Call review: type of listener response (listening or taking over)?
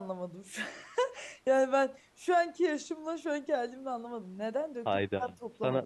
taking over